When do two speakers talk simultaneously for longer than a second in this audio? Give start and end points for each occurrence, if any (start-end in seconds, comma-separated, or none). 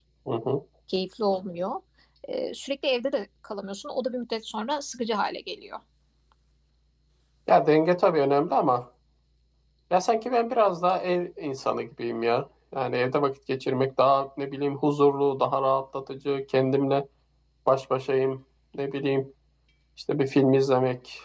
none